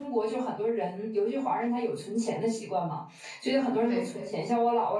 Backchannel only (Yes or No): Yes